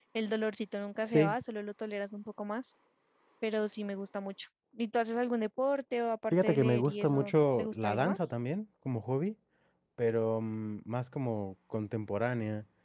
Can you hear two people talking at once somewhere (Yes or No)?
Yes